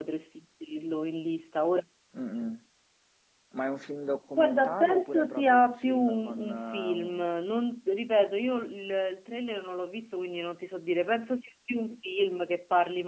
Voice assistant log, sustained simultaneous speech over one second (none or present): present